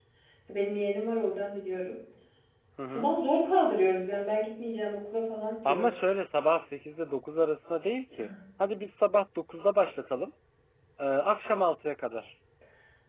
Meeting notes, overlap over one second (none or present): none